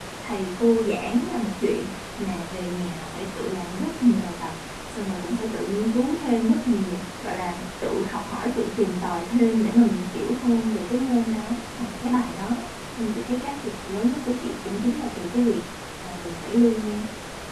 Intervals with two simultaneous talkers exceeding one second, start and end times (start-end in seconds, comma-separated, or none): none